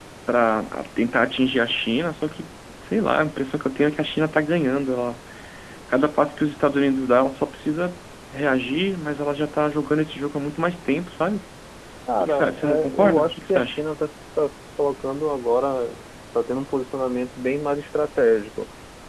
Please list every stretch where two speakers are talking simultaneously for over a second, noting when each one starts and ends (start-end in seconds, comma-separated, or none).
12.2-13.8